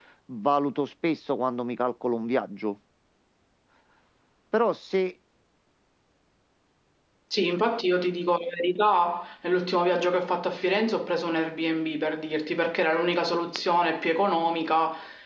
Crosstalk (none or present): none